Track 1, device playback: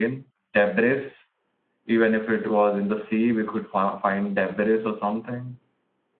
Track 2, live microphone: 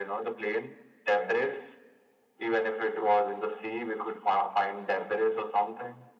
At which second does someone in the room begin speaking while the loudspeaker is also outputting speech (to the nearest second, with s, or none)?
none